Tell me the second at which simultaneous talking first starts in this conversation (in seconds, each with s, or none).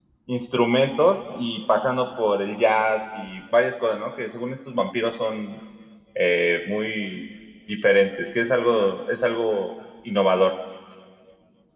none